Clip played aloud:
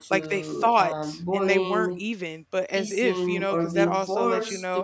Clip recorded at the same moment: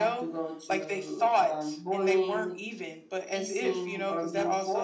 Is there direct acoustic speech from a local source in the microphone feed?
No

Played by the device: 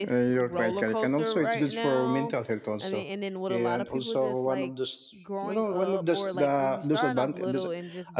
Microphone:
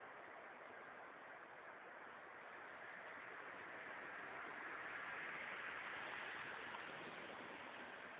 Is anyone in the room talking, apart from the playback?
No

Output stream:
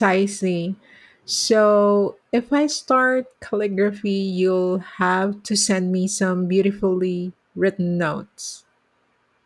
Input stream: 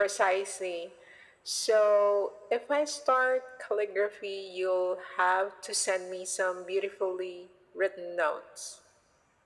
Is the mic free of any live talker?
Yes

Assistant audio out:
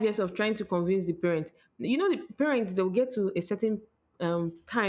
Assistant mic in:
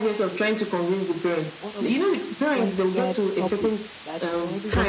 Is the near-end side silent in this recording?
No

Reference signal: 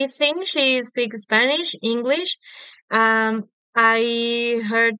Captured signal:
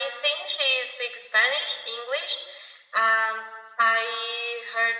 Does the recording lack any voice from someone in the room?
Yes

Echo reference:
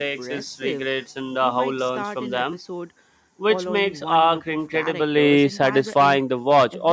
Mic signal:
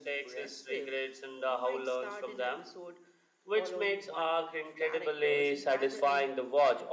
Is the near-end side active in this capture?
No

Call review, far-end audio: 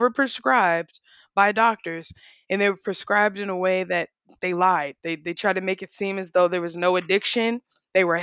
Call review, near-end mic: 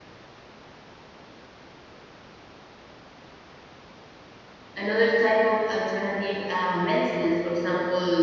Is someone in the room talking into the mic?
Yes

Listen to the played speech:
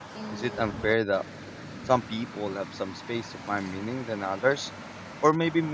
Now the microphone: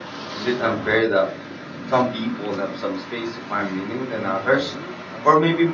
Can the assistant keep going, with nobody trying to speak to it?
No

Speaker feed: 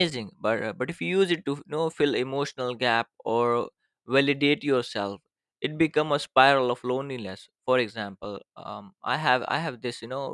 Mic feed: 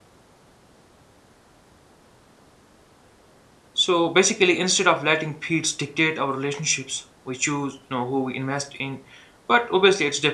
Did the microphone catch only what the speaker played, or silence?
No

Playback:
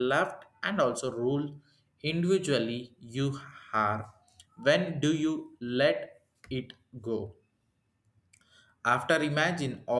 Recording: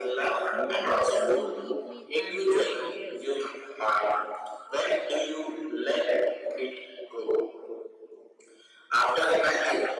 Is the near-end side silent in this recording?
No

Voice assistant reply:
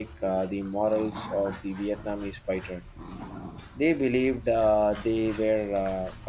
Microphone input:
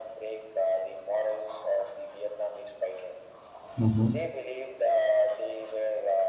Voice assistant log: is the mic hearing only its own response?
No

